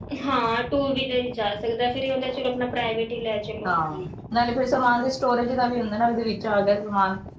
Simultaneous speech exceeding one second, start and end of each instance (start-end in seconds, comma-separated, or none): none